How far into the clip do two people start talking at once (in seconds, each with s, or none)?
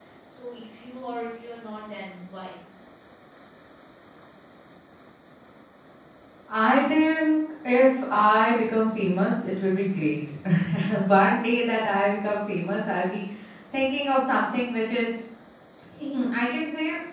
none